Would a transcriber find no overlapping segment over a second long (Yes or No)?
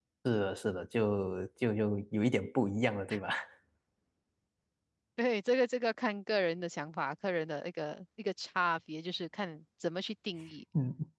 Yes